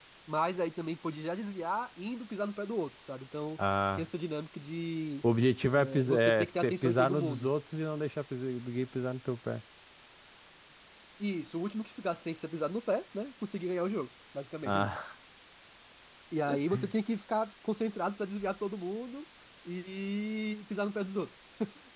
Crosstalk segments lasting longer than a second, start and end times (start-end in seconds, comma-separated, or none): 5.7-7.5